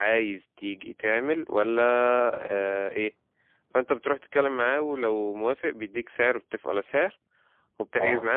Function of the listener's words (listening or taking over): listening